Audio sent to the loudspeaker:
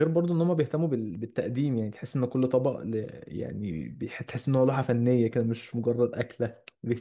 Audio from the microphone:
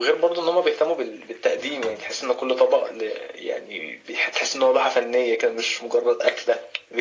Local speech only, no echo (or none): none